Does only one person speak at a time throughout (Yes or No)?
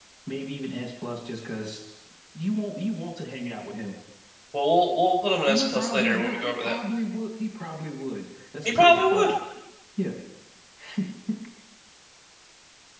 No